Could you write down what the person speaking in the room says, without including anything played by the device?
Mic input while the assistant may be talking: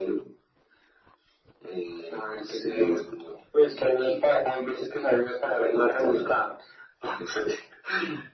none

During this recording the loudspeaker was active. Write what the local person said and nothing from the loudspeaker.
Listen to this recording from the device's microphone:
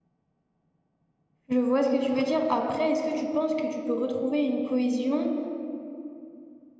Je vois ce que tu veux dire. Après, est-ce que tu penses que tu peux retrouver une cohésion

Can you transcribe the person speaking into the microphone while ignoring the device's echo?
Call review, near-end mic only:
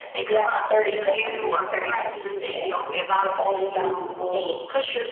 That's on your end. You're so far I give you an A plus, right?

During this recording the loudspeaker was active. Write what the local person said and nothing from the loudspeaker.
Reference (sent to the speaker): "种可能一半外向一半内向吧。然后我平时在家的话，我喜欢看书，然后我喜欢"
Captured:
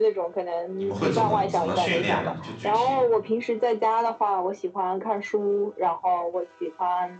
你们会怎么怎么训练呢？就具体，

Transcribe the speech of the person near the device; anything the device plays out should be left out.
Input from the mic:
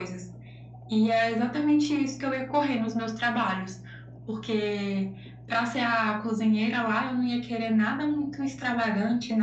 none

